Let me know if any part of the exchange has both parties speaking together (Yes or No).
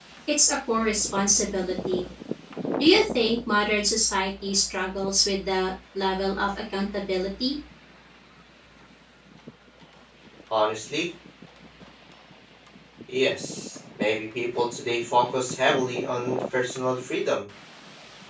No